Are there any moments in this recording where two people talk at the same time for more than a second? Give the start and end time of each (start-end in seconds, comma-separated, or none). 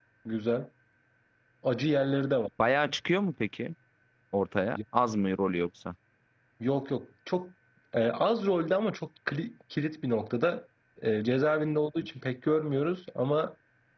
none